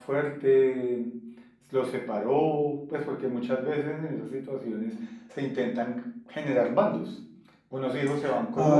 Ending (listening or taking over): listening